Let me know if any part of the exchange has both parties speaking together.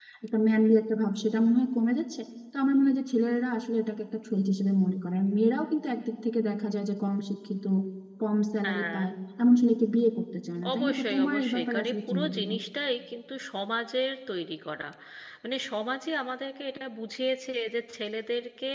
Yes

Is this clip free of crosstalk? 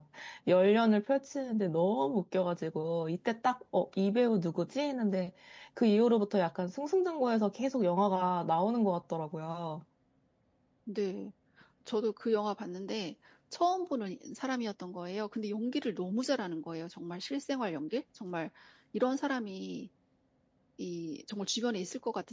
Yes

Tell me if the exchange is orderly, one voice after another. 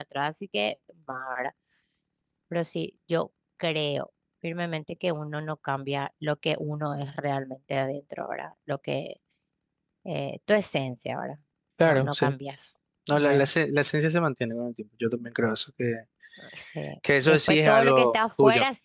No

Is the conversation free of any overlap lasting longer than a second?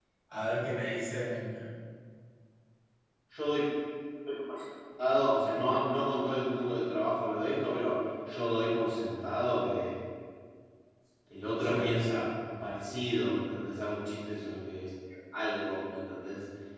Yes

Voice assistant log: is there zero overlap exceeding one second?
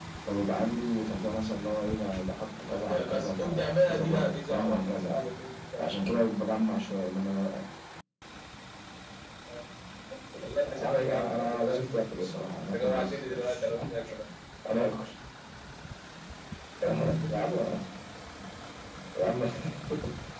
No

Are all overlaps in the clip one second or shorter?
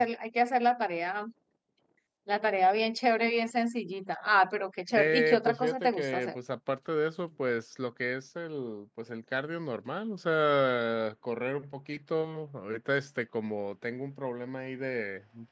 No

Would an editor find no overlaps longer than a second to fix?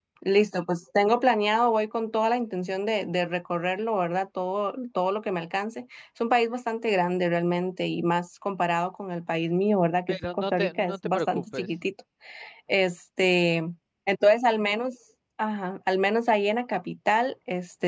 No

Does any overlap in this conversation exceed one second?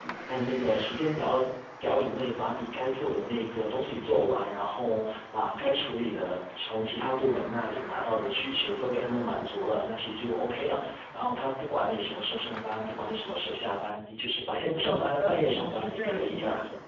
Yes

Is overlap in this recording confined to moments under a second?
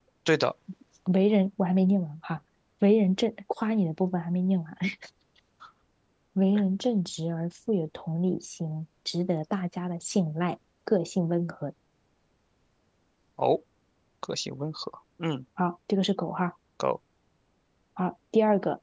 Yes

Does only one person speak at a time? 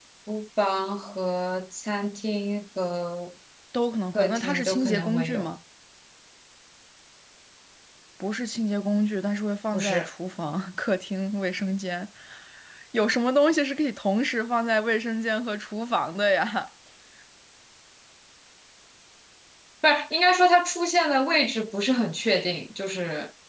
No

